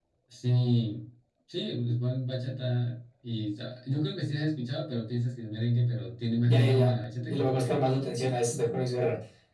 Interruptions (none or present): present